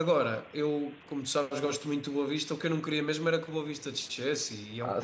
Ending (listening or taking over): taking over